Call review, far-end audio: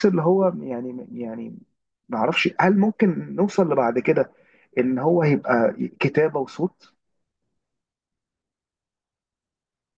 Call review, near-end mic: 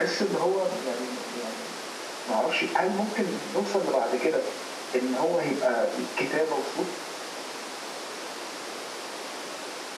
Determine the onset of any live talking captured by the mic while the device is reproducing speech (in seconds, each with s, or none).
none